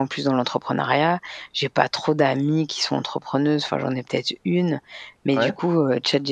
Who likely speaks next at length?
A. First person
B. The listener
A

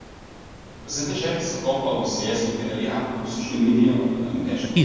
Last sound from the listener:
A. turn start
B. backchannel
A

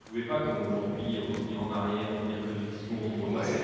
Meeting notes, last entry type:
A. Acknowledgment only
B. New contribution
A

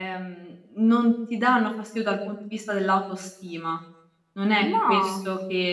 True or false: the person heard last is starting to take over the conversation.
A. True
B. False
B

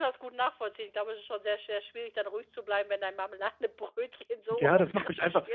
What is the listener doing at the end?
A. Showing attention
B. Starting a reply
B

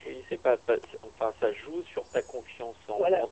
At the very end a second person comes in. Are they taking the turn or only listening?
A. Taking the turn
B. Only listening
B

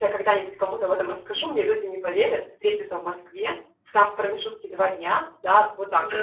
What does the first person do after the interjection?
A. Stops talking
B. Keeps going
B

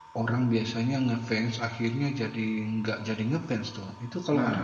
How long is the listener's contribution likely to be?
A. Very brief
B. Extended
B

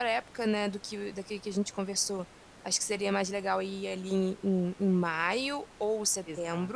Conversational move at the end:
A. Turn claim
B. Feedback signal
A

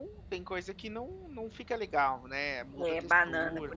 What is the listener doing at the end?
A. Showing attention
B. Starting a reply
B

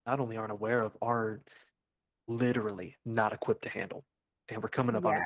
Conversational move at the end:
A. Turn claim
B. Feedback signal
B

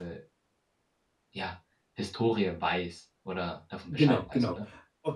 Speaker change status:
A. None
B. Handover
B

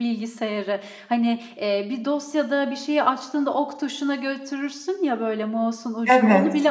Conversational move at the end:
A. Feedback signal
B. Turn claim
A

